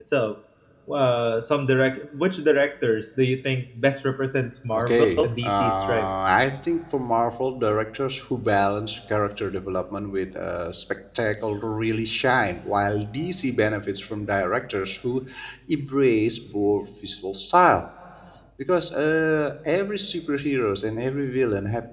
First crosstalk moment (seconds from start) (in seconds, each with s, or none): 4.7 s